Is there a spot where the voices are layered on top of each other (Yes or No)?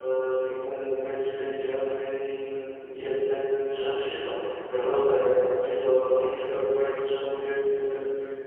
No